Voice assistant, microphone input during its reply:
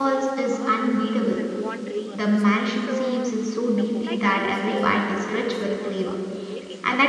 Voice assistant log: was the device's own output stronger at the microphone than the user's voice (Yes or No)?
No